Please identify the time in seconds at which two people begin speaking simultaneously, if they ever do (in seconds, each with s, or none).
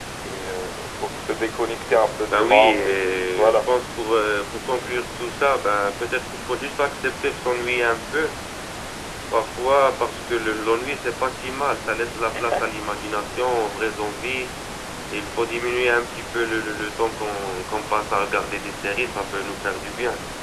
2.3 s